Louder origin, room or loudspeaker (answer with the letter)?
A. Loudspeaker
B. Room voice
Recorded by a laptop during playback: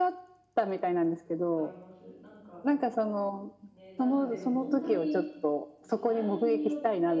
A